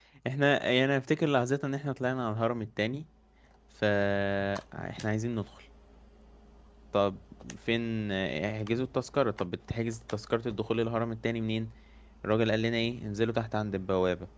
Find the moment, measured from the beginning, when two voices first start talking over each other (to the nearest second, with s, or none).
none